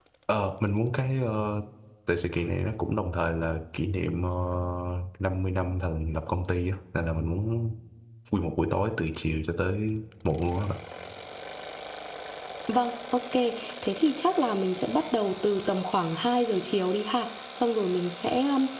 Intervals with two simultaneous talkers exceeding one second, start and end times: none

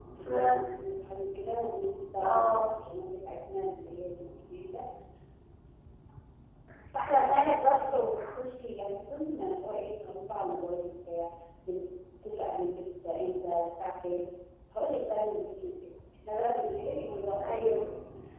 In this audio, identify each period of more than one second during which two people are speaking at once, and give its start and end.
7.1-8.4

